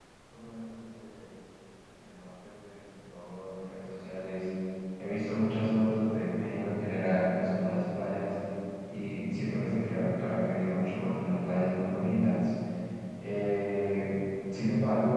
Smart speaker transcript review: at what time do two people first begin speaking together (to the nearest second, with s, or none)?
none